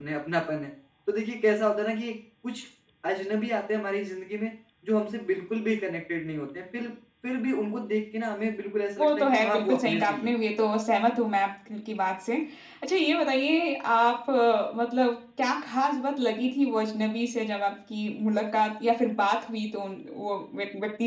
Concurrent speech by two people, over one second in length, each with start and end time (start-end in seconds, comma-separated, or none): 9.0-10.3